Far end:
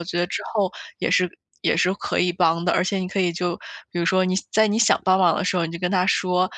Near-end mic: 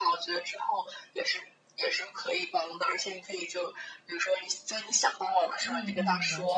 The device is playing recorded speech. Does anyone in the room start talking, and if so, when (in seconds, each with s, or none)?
5.6 s